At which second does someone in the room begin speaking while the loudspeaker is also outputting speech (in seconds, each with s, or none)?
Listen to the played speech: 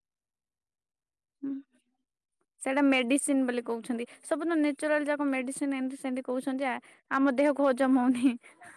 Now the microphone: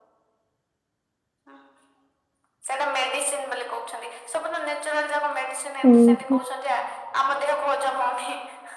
5.9 s